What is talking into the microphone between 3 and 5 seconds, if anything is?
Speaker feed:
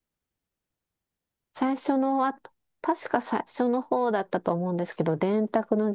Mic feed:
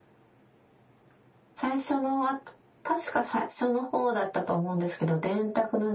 echo only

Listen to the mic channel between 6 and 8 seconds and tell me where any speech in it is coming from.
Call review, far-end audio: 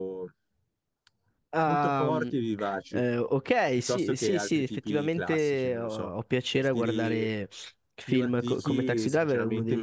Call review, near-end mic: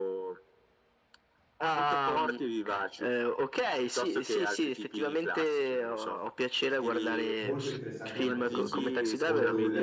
both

